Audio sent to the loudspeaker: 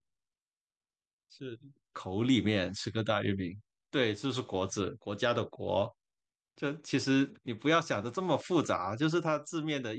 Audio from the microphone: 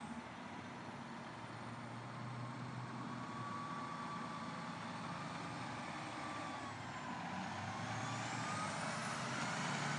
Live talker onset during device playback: none

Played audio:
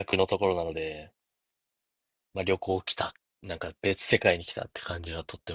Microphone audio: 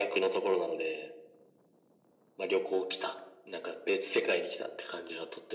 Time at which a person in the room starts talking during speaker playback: none

